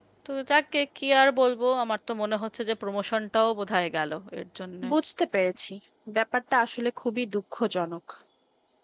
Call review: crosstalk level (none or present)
none